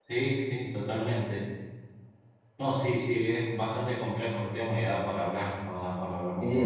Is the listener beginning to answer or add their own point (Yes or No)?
Yes